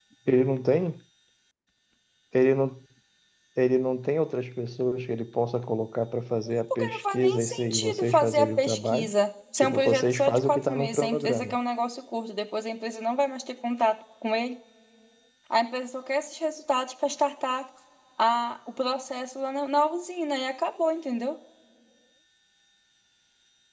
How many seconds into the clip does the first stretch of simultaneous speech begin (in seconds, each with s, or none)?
6.7 s